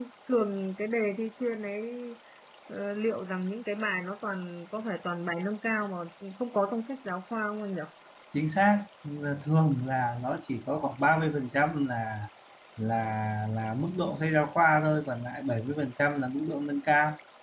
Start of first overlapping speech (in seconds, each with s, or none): none